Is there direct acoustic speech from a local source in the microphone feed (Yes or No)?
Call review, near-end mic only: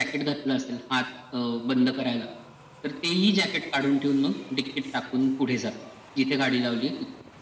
No